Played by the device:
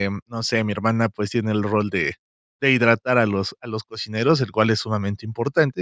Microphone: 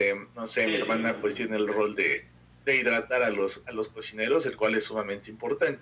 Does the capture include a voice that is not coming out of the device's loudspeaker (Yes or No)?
Yes